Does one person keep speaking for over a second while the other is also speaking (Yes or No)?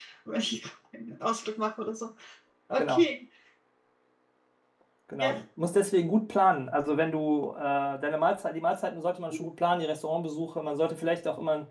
No